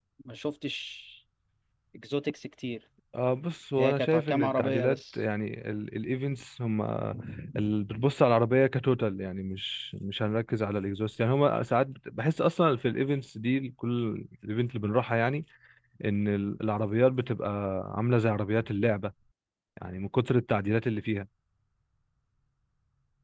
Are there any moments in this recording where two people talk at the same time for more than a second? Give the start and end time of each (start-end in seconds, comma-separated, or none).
3.8-5.2